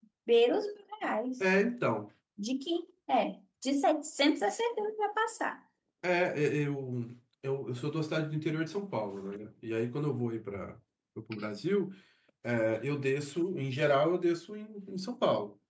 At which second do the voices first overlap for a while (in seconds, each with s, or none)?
none